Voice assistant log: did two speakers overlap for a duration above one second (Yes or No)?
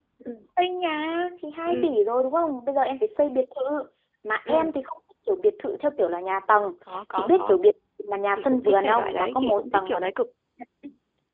Yes